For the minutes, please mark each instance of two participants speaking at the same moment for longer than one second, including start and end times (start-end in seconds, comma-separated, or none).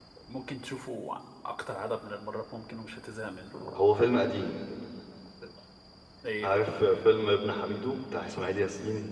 none